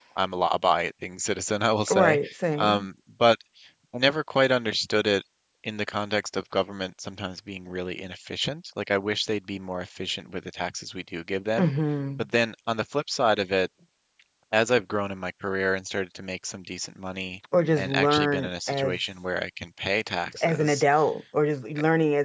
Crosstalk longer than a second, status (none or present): present